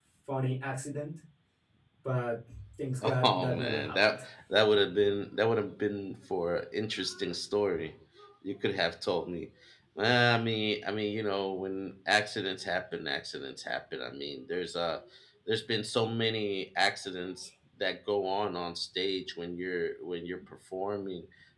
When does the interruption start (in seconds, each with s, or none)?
3.0 s